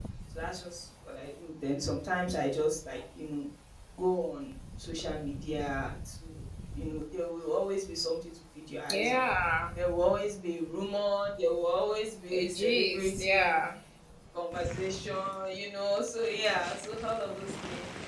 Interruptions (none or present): present